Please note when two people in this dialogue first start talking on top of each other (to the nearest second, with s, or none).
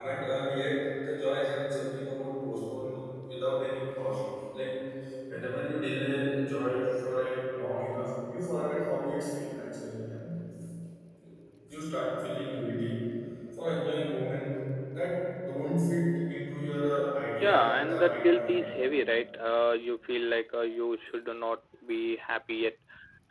17 s